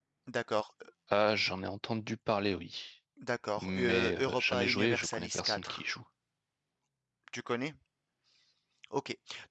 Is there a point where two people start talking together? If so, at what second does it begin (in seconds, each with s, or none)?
3.6 s